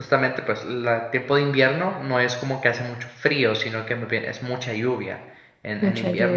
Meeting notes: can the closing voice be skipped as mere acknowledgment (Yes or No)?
Yes